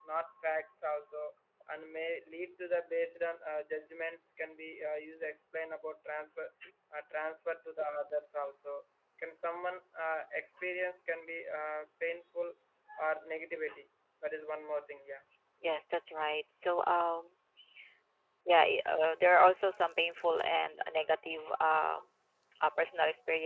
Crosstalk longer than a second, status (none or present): none